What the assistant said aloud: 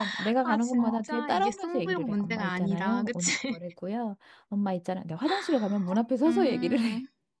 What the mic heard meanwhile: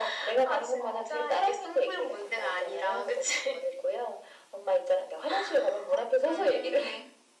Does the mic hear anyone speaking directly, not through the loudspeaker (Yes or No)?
No